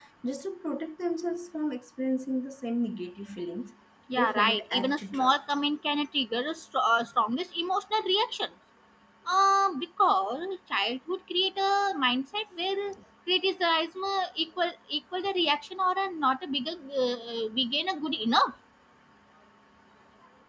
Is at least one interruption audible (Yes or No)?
Yes